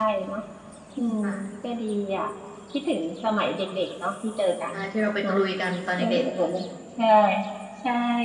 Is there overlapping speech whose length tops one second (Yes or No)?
No